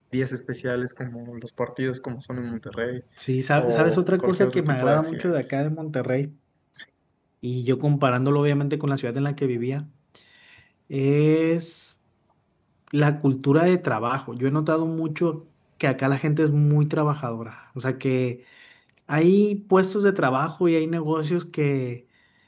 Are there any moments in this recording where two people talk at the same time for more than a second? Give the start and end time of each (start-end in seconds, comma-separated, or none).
3.6-5.4